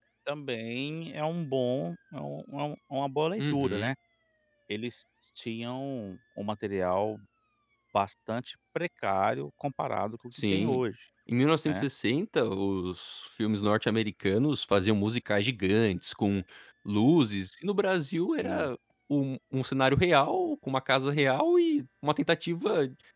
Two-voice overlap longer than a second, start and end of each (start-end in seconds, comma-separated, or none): none